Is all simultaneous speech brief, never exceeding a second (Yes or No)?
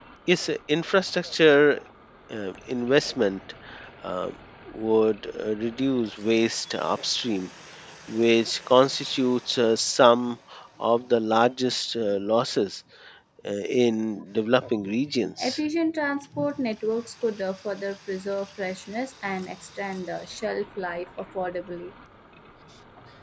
Yes